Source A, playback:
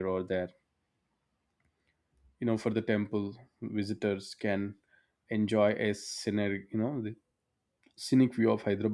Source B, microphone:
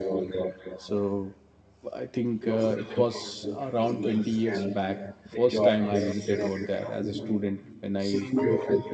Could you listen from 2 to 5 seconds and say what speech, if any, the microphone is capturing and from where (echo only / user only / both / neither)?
both